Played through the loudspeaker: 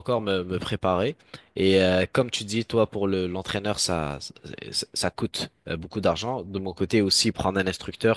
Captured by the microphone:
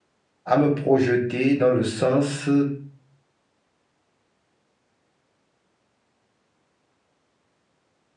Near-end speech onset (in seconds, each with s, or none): 0.5 s